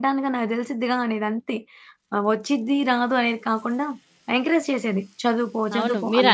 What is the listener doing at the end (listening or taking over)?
taking over